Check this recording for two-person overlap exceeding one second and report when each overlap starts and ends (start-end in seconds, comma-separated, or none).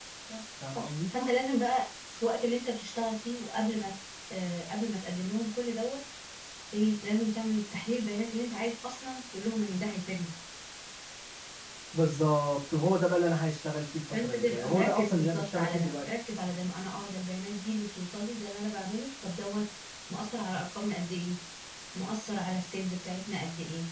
14.1-15.9